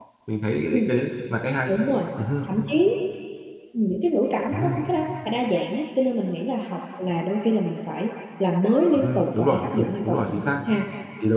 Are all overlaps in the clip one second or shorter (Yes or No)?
No